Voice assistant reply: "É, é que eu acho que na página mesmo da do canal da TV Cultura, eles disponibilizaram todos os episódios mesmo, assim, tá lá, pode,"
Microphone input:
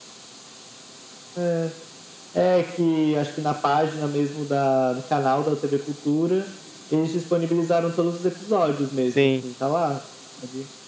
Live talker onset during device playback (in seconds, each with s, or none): 9.1 s